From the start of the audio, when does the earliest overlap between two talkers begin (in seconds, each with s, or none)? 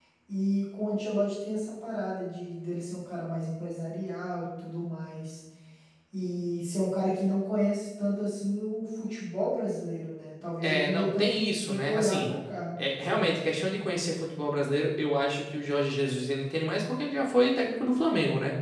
10.6 s